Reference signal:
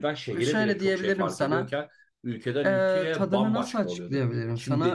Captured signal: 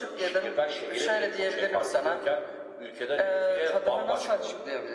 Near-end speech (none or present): none